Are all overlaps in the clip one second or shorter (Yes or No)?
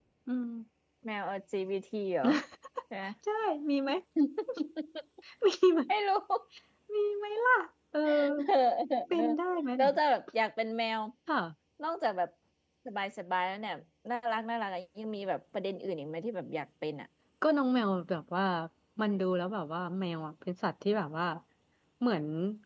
Yes